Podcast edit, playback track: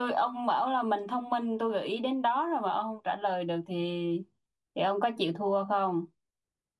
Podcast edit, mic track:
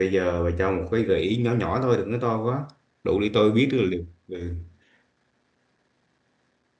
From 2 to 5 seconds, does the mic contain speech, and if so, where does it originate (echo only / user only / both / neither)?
user only